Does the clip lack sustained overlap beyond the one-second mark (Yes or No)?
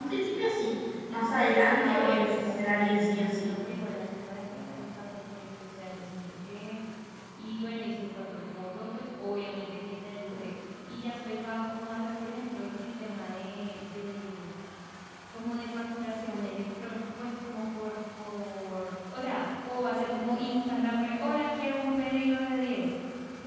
No